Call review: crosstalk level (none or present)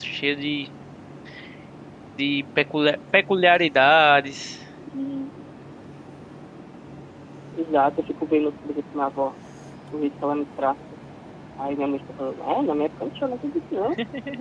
none